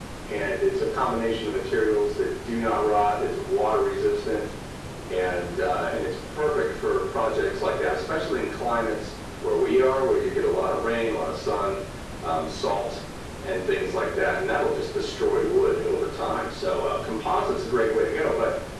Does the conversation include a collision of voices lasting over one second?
No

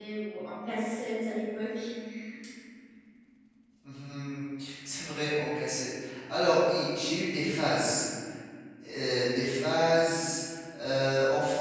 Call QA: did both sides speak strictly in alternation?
Yes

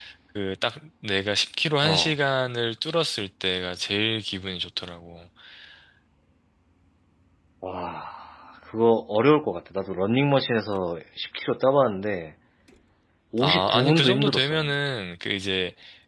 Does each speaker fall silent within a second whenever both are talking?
No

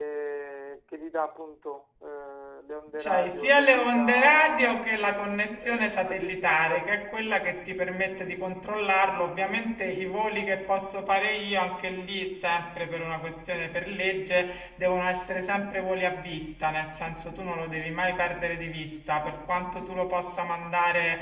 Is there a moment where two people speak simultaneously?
Yes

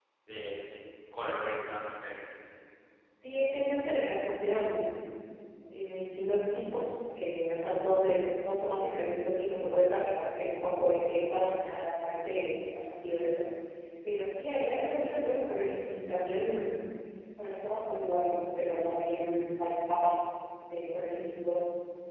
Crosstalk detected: No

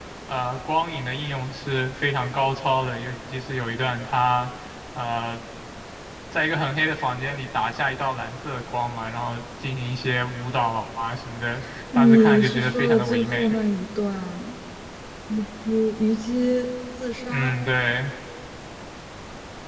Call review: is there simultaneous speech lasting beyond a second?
Yes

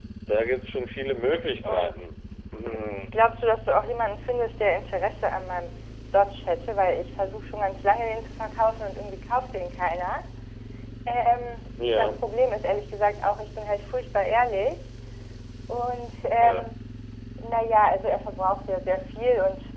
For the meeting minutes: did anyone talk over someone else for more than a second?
No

